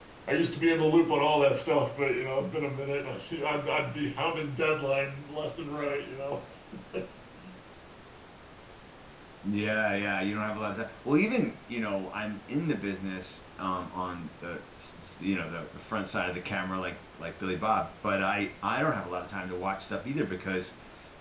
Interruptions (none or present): none